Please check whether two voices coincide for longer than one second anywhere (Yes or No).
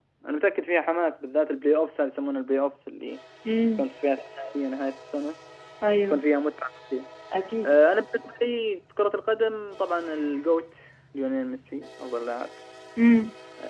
No